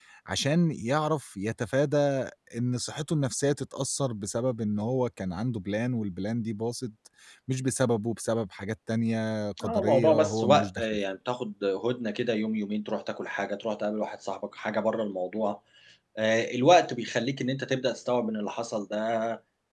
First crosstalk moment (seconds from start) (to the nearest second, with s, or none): 10 s